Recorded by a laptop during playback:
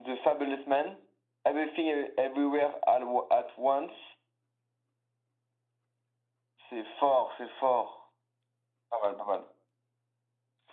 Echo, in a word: present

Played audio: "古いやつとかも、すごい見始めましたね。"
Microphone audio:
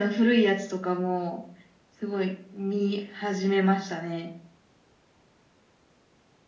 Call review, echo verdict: present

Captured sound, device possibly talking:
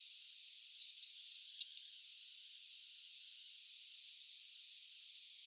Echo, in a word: none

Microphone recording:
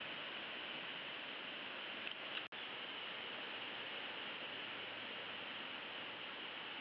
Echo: none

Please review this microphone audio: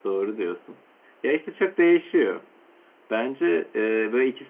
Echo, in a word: none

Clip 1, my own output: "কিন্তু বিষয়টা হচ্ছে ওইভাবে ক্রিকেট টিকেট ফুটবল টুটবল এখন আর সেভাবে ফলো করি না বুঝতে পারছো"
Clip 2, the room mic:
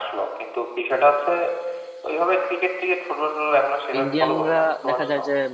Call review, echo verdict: present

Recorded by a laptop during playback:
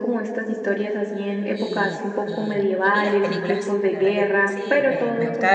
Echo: present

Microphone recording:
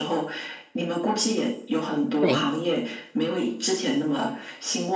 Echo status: present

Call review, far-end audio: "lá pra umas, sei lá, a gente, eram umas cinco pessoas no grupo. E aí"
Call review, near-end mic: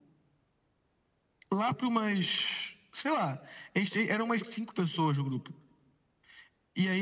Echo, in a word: present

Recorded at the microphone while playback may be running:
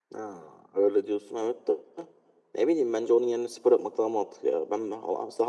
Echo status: none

